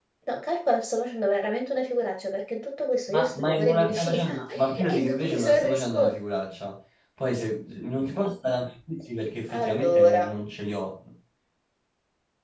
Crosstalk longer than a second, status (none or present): present